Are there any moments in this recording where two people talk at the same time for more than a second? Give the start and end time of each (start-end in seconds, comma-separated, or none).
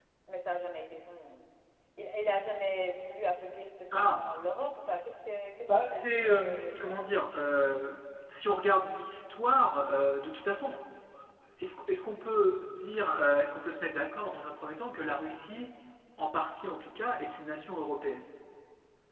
5.7-7.1